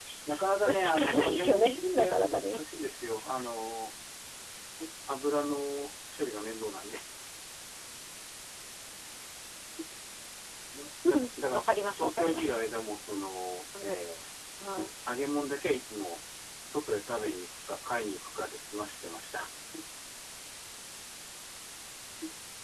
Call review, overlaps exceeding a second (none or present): present